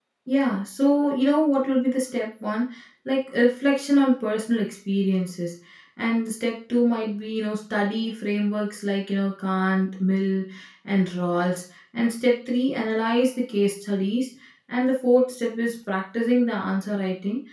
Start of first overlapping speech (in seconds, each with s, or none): none